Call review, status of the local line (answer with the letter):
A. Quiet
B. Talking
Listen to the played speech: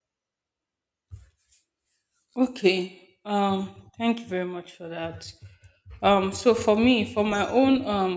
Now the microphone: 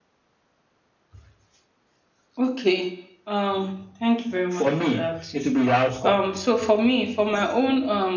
B